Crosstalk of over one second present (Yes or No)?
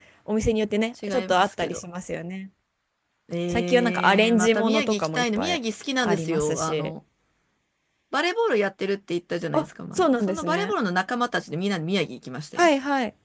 Yes